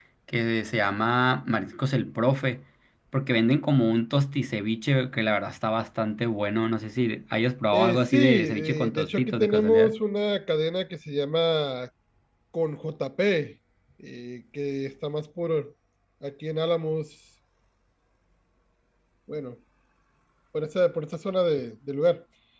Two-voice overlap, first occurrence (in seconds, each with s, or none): 7.7 s